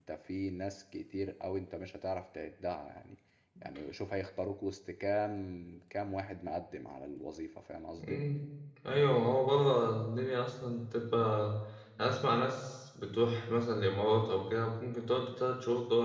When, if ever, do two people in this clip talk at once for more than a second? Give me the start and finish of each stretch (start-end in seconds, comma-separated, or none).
none